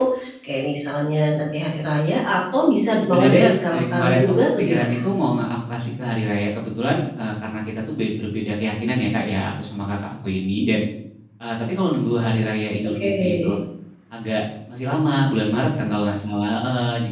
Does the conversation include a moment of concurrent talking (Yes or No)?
Yes